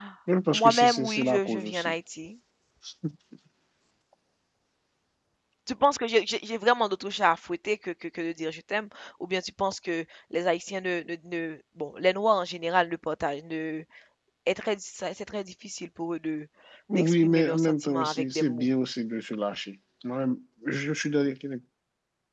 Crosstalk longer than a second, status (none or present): present